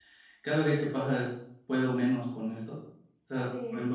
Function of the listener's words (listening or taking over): listening